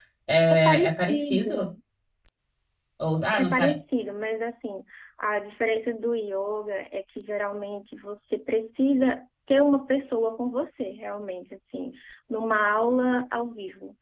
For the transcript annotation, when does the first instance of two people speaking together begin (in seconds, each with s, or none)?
0.5 s